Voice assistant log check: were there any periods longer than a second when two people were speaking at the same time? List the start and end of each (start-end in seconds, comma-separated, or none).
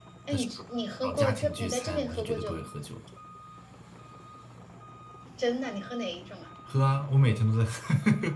1.0-2.7